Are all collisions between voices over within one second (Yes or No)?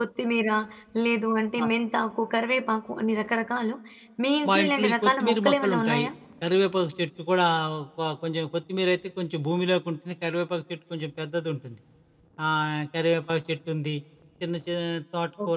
No